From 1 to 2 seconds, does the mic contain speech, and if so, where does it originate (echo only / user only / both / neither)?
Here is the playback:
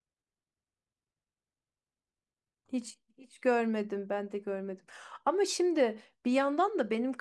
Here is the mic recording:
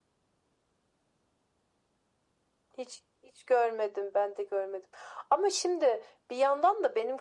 neither